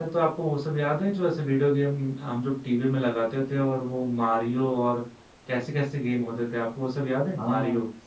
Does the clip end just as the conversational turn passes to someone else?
Yes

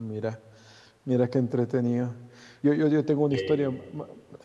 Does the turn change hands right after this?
No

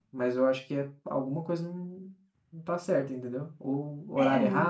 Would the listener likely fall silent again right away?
Yes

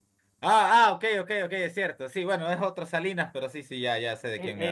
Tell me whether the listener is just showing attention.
No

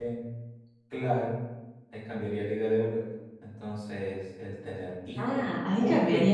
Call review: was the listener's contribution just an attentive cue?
No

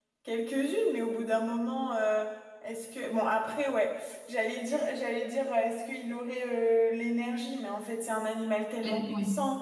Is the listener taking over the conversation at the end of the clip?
No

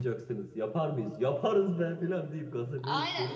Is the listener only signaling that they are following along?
No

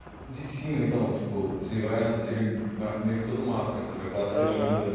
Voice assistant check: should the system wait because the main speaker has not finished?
No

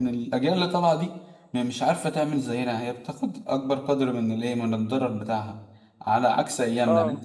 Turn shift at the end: No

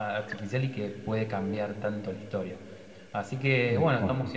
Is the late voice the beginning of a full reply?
No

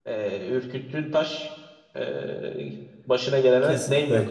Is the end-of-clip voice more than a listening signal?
Yes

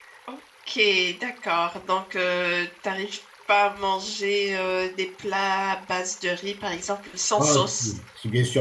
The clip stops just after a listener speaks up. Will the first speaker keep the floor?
No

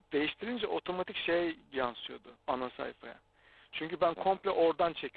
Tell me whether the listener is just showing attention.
Yes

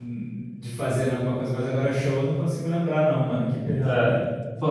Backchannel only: No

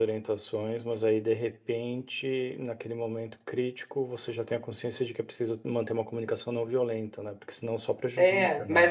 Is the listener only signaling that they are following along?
No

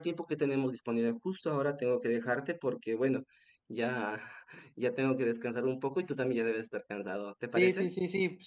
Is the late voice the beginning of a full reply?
Yes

